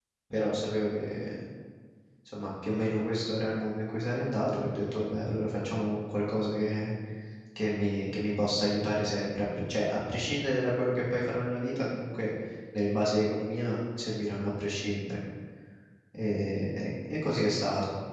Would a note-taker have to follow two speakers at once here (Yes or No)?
No